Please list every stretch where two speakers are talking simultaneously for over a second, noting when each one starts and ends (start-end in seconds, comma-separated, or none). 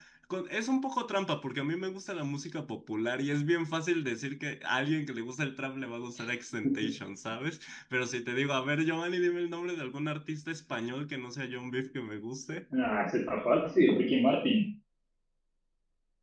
none